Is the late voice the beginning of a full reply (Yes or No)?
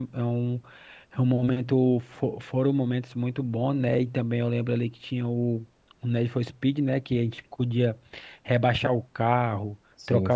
No